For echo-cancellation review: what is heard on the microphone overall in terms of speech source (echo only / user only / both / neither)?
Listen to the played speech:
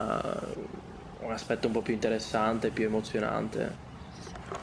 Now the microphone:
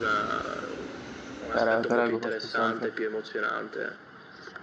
both